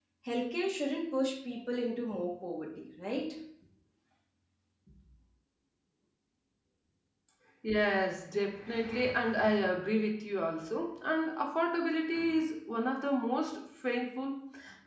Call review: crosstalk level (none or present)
none